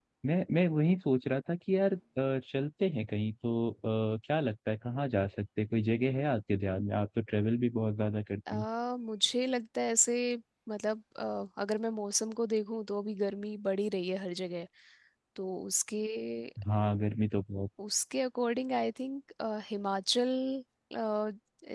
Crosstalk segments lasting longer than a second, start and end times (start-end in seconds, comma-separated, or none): none